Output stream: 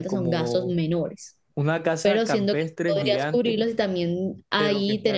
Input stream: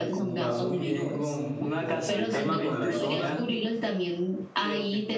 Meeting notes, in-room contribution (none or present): present